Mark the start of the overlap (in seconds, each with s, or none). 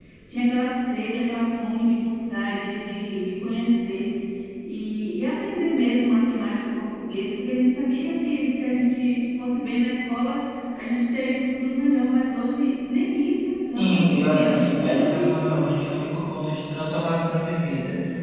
13.8 s